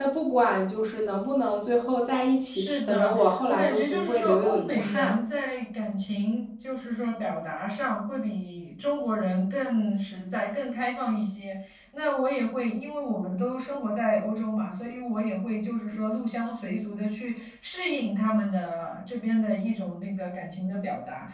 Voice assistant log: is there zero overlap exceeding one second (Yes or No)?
No